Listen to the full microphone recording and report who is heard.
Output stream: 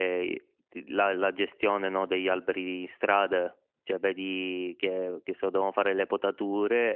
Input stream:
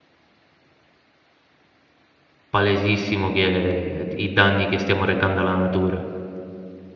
user only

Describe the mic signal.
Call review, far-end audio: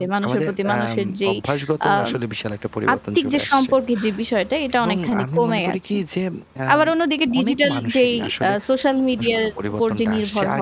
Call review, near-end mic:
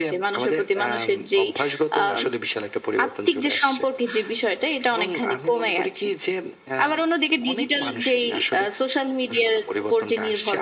echo only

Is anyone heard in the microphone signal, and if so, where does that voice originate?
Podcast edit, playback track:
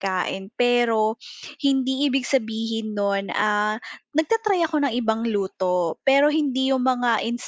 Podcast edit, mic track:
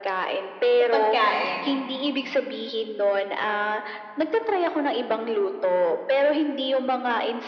both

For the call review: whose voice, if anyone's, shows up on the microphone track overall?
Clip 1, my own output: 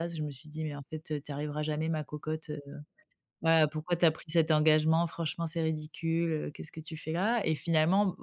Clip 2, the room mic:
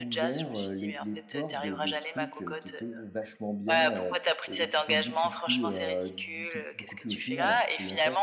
both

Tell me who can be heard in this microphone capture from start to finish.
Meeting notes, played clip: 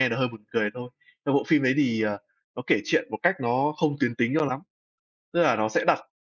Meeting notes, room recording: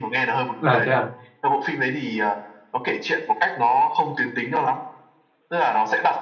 both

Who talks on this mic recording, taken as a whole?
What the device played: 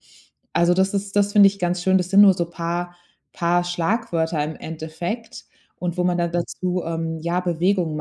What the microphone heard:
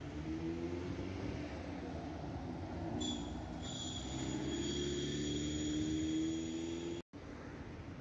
neither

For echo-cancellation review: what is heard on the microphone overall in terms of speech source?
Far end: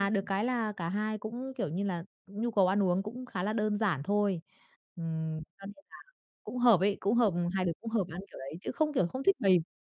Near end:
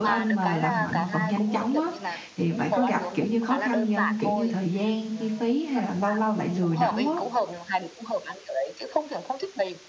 both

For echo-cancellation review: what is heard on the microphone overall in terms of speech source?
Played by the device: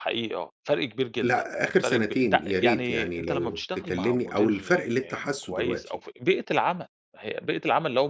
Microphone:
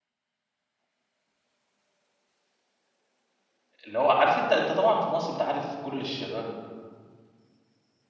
user only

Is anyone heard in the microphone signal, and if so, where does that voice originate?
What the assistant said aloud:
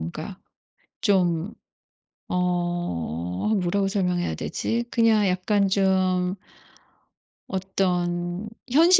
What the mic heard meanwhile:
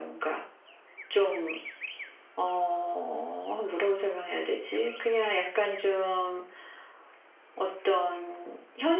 echo only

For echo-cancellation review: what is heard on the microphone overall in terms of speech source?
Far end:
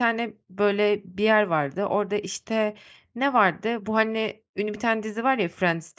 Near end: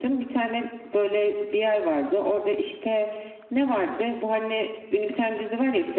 echo only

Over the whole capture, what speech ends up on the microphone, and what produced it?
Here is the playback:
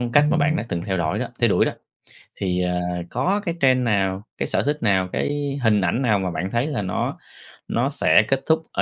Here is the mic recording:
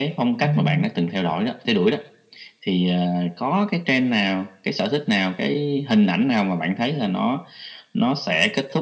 echo only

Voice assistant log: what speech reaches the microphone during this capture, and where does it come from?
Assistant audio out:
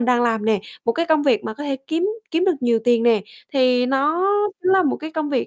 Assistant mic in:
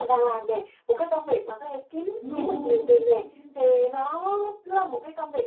both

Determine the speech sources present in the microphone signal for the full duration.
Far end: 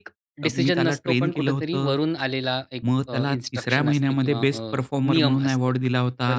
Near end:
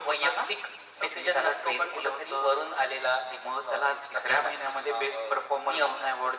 echo only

